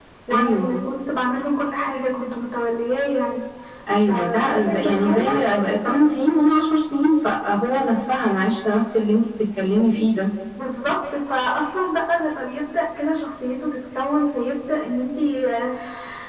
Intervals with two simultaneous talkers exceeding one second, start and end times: 4.1-5.4

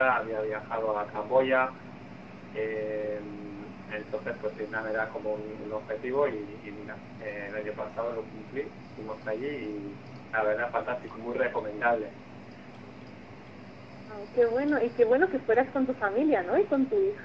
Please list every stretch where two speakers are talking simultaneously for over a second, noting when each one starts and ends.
none

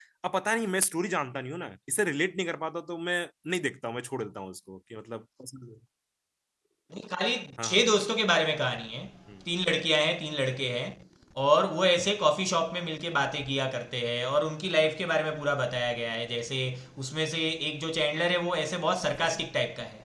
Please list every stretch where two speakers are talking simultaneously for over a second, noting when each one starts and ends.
none

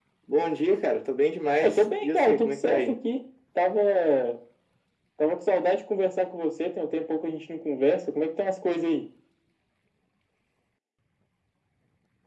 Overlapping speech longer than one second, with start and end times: 1.6-3.0

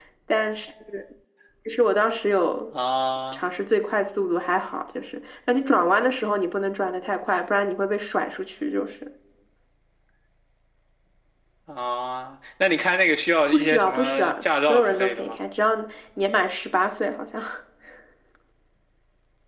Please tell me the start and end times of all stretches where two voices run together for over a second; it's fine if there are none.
13.5-15.4

